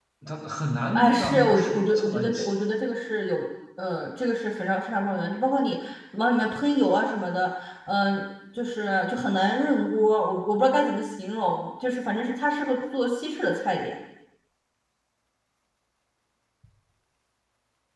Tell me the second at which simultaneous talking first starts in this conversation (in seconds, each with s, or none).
0.9 s